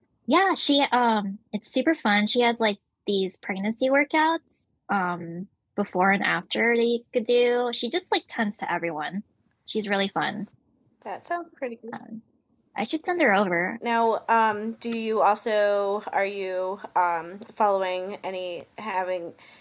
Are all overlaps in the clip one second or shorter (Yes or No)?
Yes